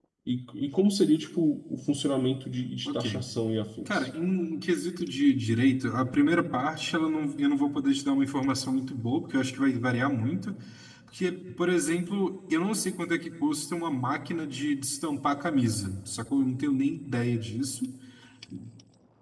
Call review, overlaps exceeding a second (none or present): none